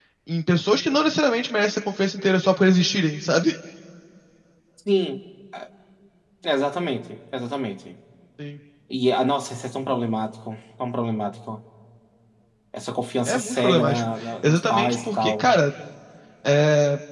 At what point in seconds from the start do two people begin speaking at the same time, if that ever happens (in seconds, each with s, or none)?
13.2 s